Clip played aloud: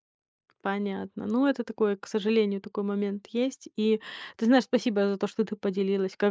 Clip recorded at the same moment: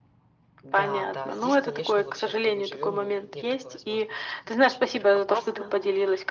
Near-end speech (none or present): present